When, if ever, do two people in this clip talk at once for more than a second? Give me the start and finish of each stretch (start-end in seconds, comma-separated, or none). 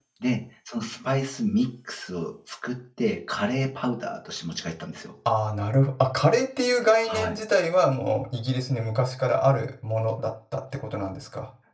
none